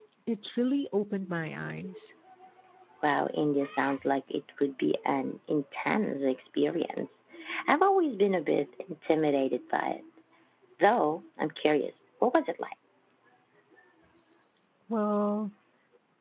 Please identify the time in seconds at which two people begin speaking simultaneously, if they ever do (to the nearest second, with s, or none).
none